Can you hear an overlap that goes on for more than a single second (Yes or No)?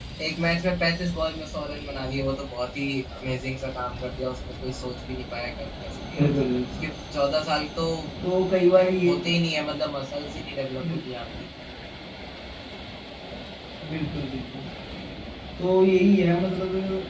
No